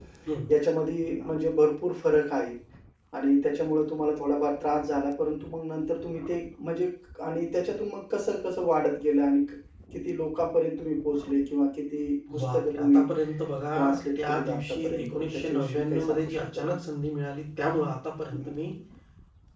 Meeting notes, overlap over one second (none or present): present